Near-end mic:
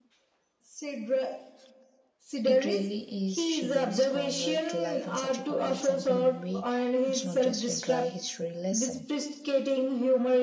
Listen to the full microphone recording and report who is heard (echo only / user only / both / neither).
both